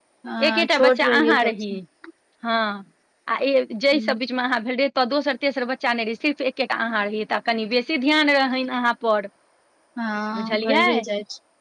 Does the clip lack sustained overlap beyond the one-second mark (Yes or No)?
No